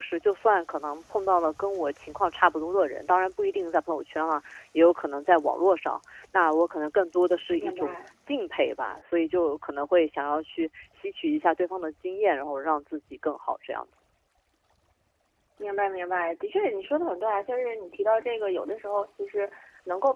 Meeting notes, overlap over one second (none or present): none